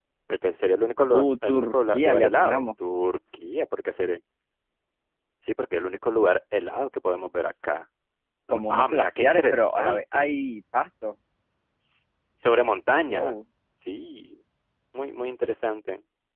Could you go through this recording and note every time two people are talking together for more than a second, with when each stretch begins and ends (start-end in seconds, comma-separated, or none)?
1.1-2.7, 8.5-10.3